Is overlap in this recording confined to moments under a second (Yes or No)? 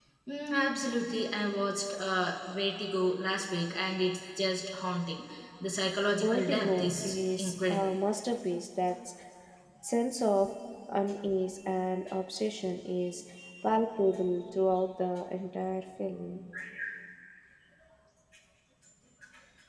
No